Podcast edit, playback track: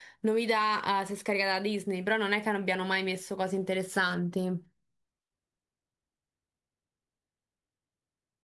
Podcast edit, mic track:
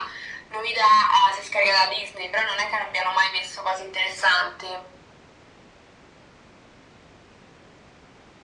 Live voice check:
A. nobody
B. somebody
A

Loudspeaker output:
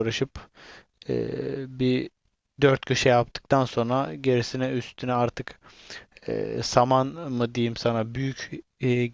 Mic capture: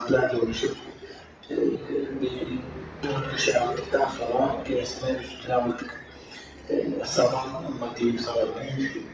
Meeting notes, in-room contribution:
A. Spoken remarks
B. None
B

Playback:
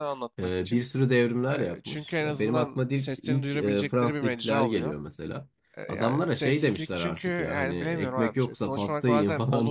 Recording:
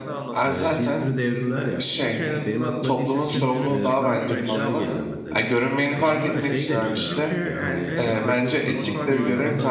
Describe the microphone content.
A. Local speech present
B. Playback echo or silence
A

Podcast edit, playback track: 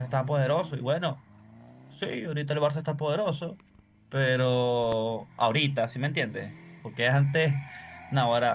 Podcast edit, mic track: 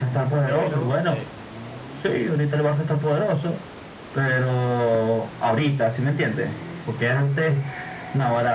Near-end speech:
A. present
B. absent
A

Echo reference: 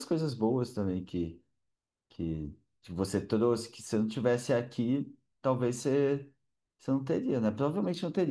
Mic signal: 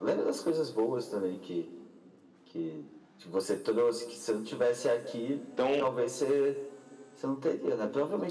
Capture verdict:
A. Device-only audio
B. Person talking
B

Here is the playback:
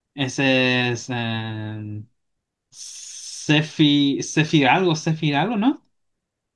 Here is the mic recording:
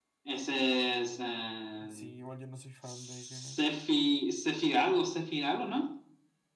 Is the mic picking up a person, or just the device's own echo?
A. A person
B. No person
A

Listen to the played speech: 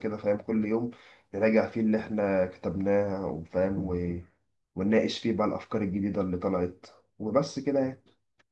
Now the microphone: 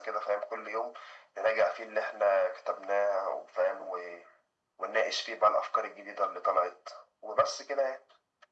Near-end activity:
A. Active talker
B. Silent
B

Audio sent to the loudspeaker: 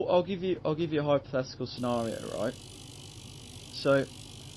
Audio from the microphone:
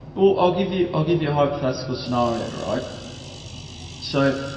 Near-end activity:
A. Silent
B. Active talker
A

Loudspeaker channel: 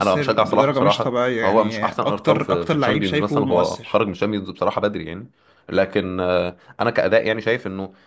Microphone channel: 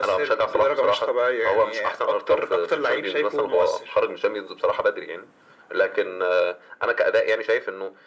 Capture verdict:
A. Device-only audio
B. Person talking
A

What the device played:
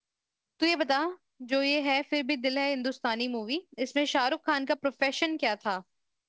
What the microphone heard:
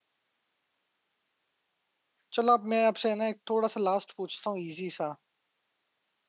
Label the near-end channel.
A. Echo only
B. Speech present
B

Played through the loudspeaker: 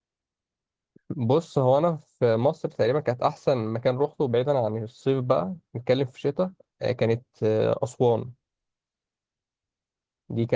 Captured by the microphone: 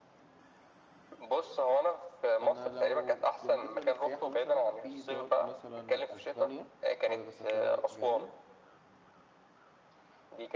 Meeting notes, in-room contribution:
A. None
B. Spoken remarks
B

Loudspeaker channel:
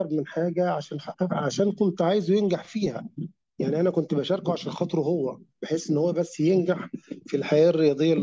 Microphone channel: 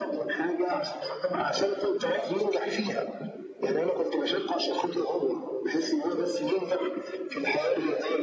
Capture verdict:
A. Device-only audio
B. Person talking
A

